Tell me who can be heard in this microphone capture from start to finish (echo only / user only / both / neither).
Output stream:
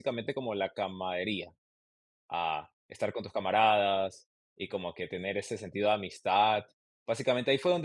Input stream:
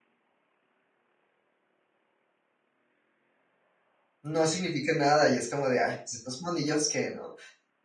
user only